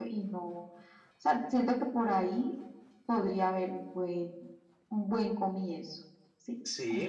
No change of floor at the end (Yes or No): No